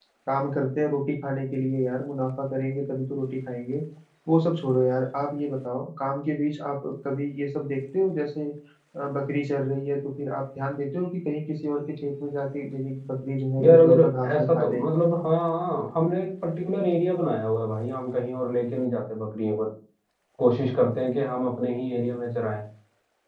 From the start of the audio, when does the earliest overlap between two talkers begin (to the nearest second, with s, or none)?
14 s